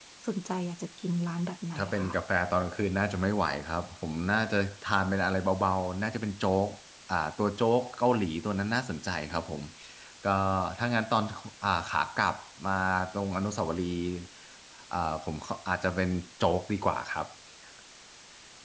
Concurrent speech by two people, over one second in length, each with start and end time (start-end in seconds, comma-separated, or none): none